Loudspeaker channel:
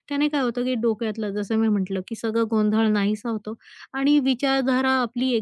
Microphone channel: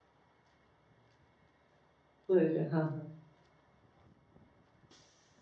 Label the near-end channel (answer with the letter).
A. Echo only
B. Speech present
B